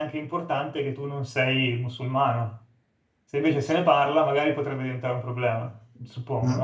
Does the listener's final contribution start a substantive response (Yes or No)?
Yes